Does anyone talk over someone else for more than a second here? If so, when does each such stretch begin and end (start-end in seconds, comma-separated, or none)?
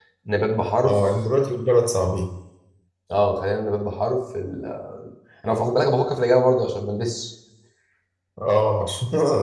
none